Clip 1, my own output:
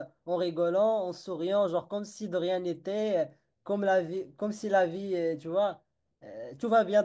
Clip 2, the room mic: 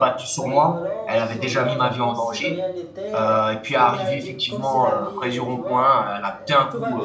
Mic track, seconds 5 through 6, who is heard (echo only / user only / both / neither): both